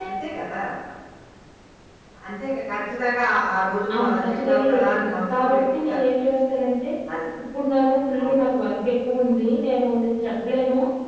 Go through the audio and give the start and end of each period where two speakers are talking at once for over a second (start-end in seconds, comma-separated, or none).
4.0-6.0